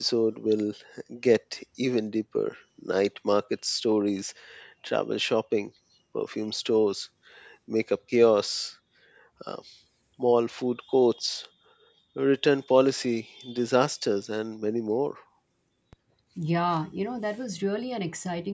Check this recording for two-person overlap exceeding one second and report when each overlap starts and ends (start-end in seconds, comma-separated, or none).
none